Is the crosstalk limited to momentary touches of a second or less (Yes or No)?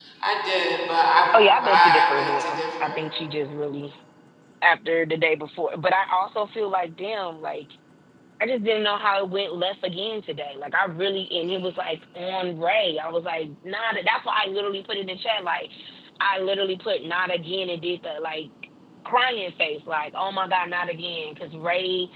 No